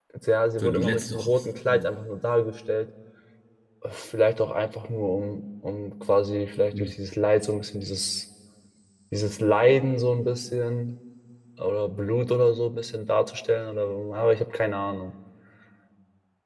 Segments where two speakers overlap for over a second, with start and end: 0.6-1.9

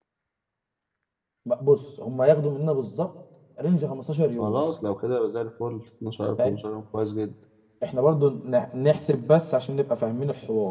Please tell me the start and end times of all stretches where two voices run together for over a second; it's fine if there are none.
none

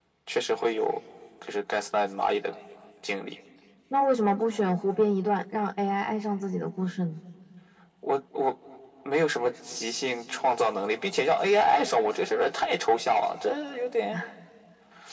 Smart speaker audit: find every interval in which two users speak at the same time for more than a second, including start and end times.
none

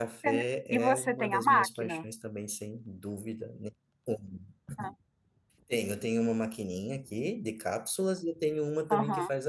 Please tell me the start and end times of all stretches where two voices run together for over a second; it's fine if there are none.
0.8-2.0

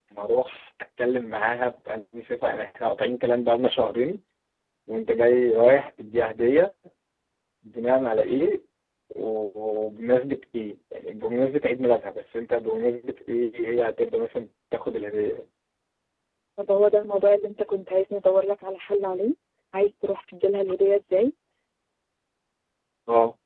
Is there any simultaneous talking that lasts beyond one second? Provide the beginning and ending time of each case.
none

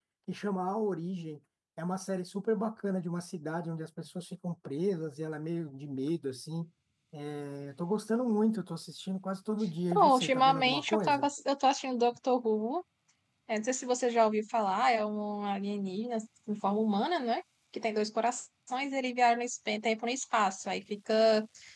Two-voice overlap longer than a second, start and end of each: 9.9-11.3

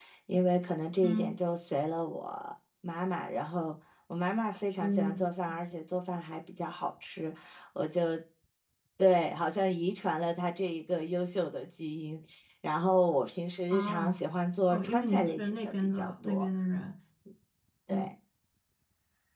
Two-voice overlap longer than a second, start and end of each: 14.7-16.5

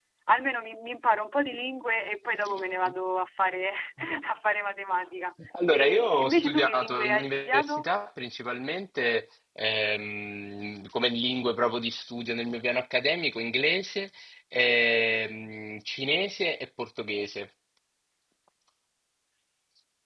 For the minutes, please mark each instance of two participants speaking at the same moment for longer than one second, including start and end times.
5.7-7.8

